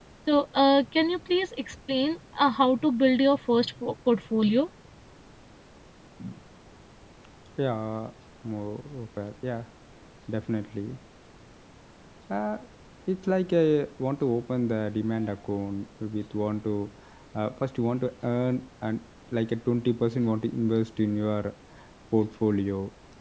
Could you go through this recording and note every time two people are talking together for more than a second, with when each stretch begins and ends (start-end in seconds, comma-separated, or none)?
none